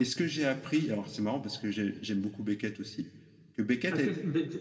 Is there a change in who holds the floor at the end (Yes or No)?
Yes